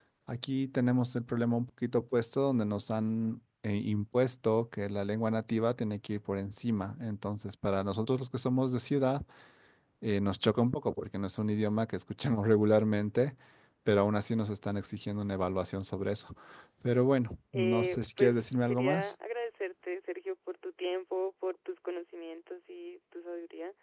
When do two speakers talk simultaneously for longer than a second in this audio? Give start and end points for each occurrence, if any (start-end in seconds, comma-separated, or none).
17.5-19.1